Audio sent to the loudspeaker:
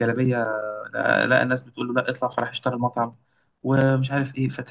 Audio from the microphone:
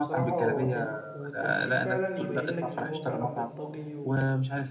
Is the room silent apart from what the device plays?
No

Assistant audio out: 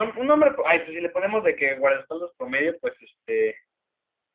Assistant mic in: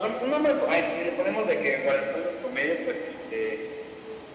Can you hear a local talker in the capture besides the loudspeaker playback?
No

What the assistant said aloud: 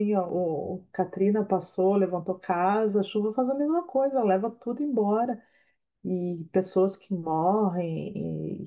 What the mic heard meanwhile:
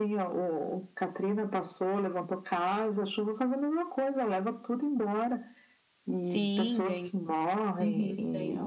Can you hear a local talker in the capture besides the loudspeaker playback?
Yes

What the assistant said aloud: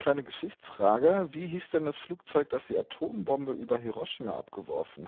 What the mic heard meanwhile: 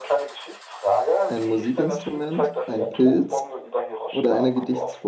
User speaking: Yes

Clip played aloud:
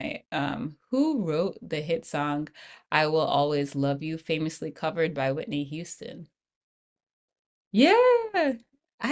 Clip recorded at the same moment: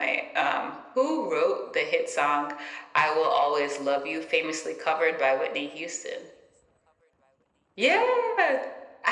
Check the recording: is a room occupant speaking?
No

